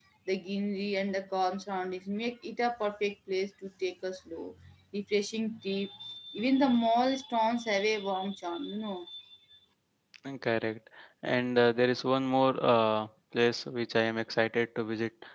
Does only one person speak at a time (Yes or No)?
Yes